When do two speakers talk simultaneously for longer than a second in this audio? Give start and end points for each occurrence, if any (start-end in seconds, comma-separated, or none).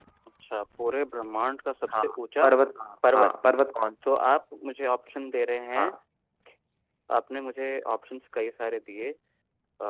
none